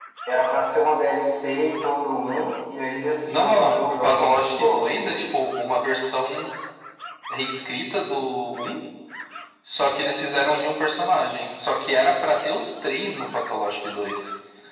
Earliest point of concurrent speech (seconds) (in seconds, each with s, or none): 3.3 s